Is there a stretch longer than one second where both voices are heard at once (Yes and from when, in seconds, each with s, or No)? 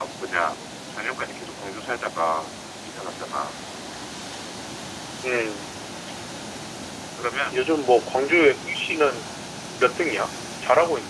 No